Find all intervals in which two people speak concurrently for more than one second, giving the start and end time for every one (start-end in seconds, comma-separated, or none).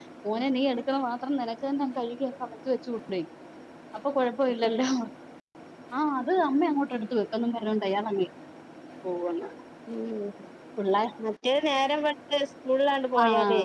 none